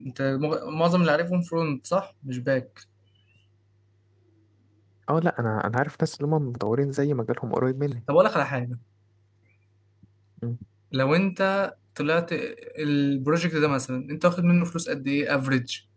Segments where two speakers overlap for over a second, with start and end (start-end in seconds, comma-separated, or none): none